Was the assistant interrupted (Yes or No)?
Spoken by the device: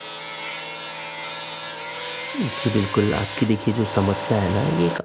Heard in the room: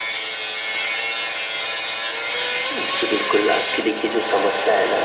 No